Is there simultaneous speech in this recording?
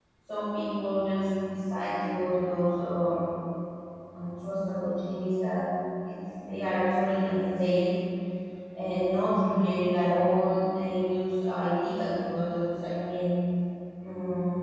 No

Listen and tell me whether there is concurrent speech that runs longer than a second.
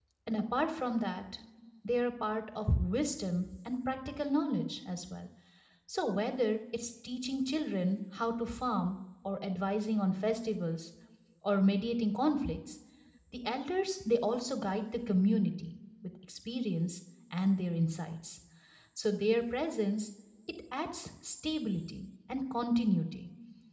No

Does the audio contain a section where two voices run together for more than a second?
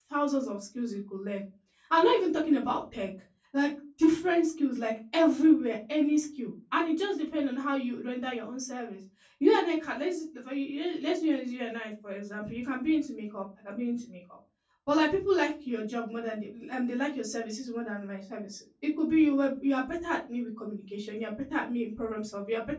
No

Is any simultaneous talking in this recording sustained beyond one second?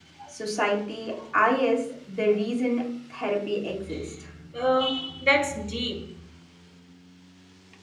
No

